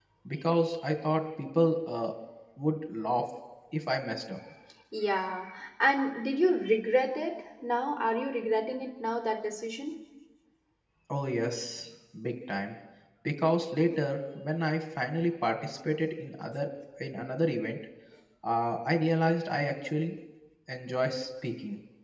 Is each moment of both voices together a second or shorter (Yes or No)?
Yes